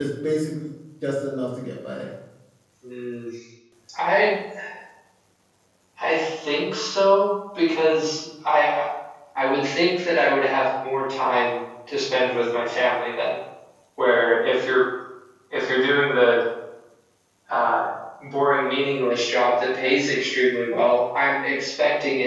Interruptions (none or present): none